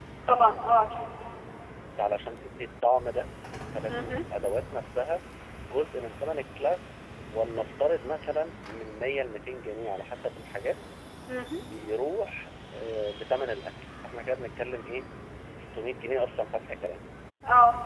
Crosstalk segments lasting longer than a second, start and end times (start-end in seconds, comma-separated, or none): none